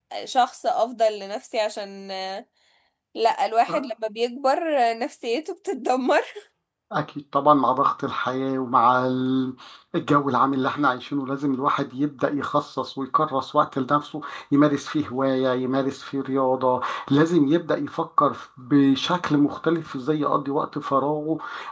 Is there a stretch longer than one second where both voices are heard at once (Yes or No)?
No